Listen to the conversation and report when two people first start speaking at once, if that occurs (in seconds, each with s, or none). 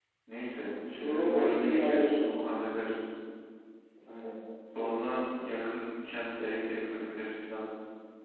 0.9 s